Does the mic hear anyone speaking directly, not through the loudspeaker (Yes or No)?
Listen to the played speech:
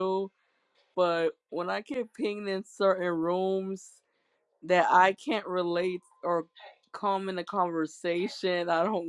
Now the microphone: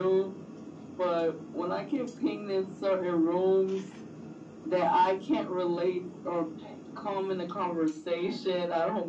No